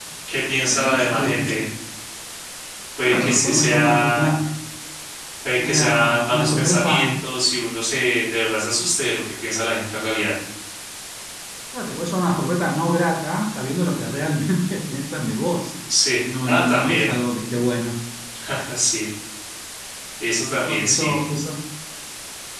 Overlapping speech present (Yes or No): Yes